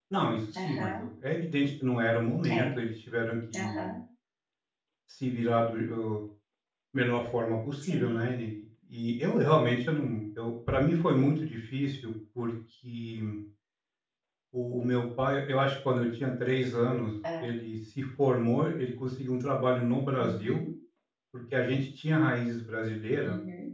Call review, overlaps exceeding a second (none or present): none